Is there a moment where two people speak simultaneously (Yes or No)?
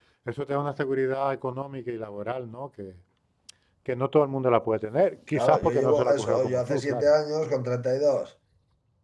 Yes